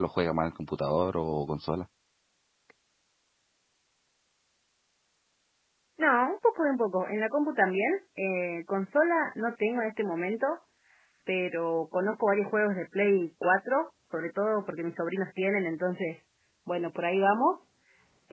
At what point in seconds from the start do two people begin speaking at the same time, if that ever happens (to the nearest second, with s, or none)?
none